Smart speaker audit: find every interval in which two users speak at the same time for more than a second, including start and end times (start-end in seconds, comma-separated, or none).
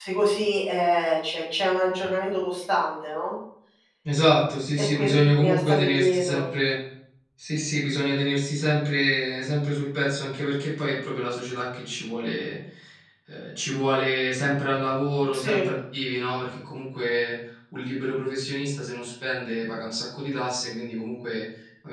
4.8-6.4